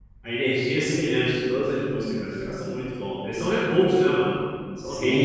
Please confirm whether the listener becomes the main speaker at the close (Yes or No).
Yes